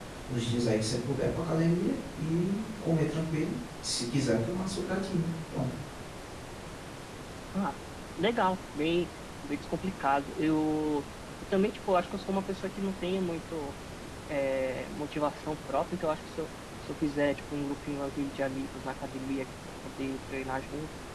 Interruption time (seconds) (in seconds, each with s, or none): none